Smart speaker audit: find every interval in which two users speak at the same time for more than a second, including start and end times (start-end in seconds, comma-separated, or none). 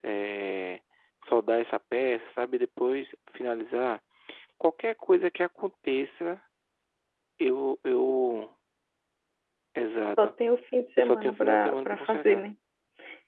11.0-12.5